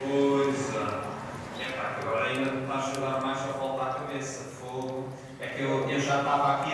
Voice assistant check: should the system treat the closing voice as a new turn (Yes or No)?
No